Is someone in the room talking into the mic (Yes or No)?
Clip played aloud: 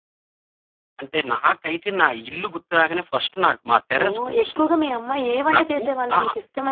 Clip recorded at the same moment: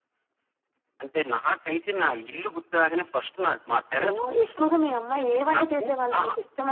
No